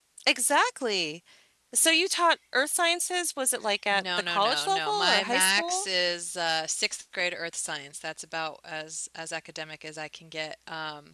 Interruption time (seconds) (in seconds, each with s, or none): 3.9 s